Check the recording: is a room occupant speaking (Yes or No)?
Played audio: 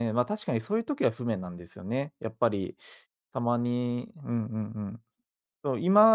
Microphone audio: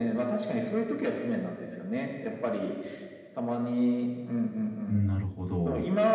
Yes